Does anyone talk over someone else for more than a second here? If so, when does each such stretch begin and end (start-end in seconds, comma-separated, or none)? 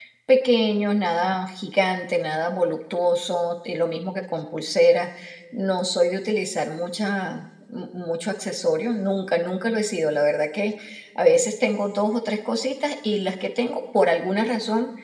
none